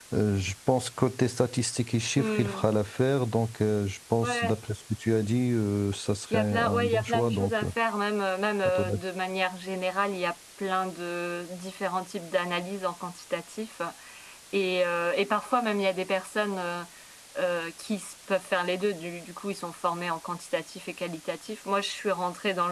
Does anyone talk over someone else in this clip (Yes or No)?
Yes